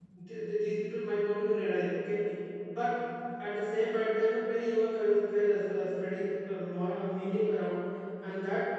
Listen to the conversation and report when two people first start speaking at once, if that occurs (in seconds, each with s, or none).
none